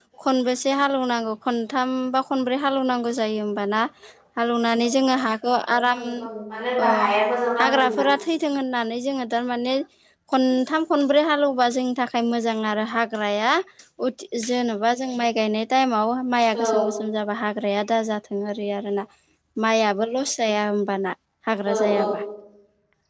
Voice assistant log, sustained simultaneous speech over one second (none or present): none